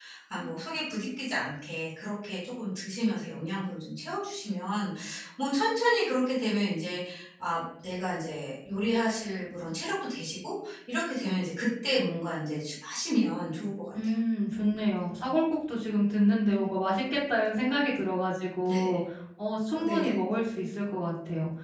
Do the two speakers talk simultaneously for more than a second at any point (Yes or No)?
No